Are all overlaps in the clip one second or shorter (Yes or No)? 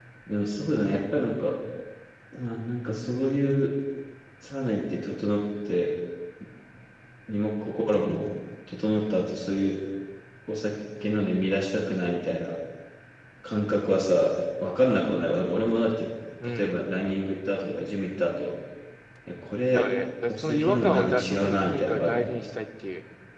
No